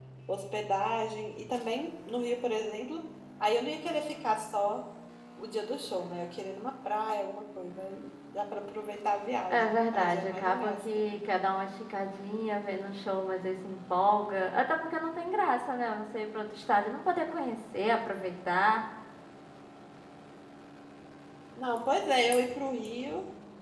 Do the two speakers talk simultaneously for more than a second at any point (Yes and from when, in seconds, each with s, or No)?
Yes, from 9.5 s